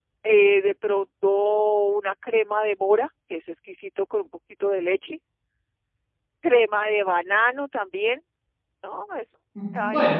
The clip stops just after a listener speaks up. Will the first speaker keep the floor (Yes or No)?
No